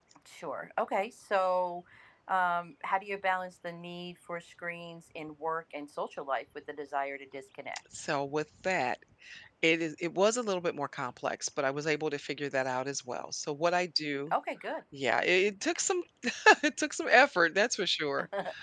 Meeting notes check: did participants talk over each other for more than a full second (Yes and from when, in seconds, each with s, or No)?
No